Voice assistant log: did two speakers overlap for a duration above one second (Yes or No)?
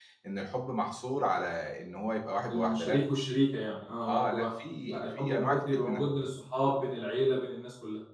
Yes